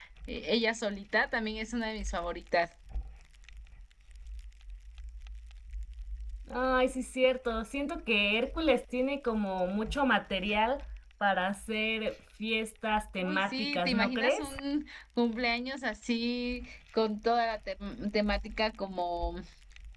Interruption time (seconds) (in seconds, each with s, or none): 13.2 s